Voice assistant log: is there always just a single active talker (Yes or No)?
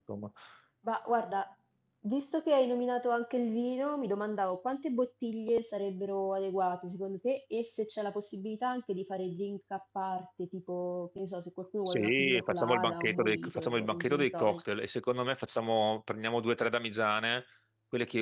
No